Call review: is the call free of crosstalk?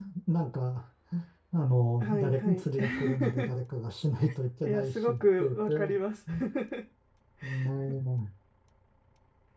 No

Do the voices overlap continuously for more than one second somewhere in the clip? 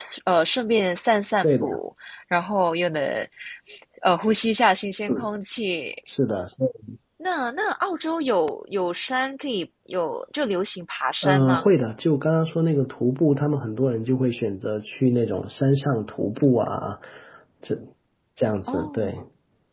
No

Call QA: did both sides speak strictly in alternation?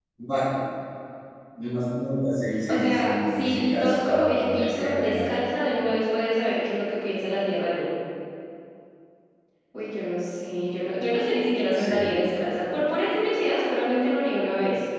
No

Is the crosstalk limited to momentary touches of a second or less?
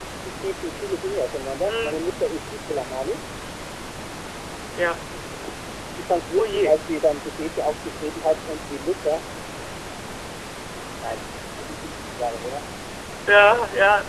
Yes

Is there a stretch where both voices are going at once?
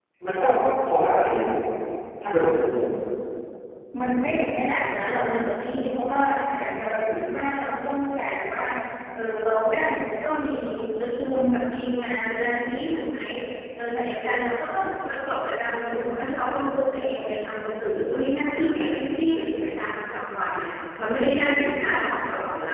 No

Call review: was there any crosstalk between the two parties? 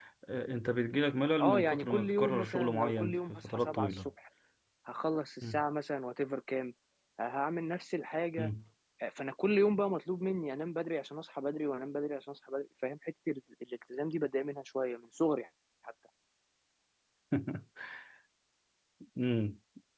Yes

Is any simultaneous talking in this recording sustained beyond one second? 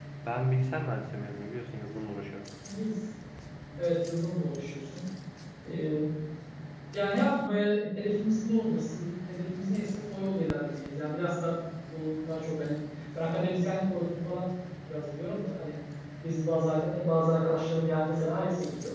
No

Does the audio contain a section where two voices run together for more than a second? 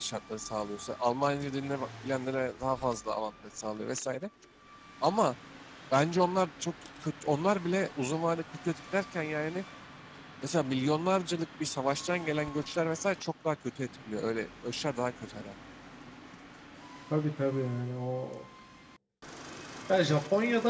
No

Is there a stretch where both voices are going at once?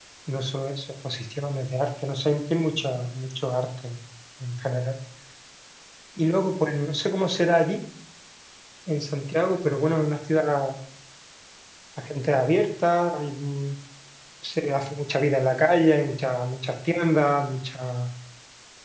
No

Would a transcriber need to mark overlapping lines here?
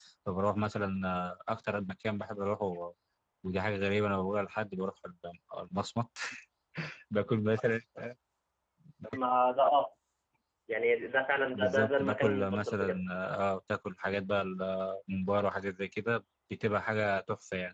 Yes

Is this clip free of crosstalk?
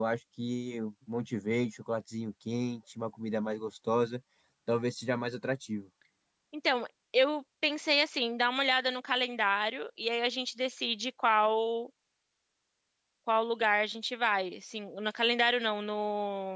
Yes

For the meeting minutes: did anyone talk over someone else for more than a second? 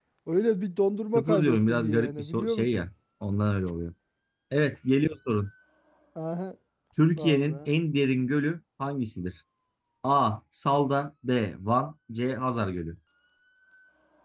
Yes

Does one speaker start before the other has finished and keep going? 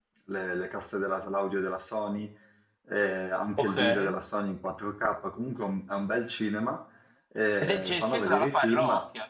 Yes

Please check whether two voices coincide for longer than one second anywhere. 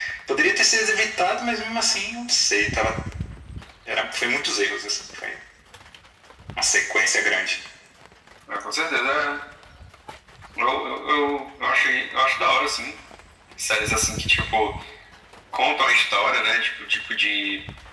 No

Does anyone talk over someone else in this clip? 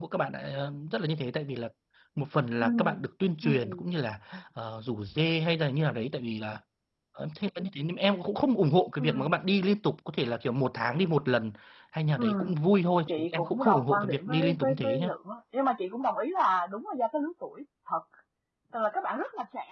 Yes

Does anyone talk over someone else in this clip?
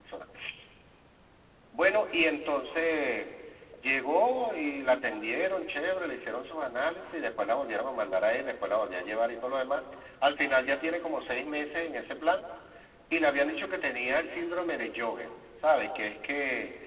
No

